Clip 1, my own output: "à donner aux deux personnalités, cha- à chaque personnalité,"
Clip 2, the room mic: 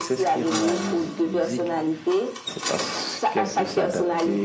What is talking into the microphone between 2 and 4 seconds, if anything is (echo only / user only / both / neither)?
both